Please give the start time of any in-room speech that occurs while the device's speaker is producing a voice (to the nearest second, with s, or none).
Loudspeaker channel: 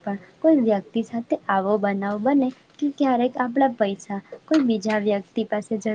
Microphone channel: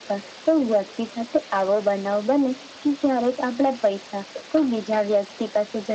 none